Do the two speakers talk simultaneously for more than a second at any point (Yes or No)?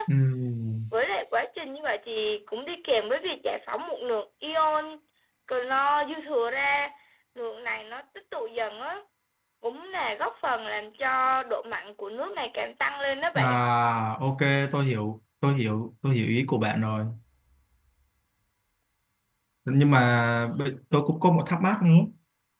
No